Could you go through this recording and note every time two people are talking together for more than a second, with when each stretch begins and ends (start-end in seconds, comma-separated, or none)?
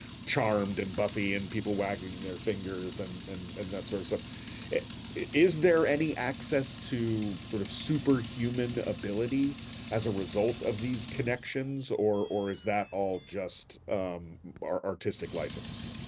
none